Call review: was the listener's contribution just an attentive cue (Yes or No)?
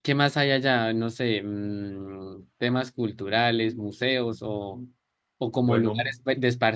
Yes